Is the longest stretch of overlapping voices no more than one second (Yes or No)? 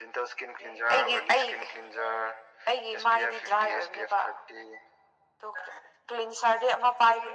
No